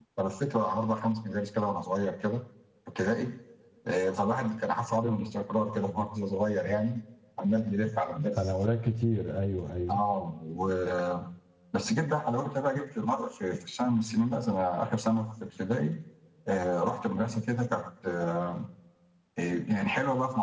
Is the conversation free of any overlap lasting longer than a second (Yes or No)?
Yes